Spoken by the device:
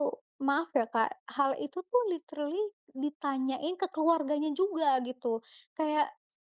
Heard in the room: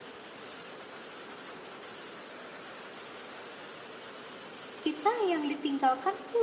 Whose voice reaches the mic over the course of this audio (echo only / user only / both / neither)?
user only